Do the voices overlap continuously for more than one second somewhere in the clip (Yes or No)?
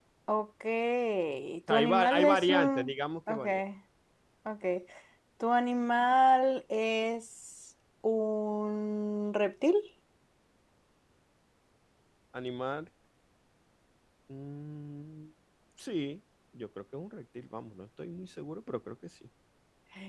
Yes